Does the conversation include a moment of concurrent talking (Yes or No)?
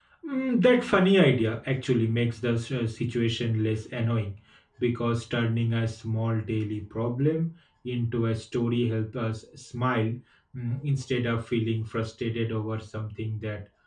No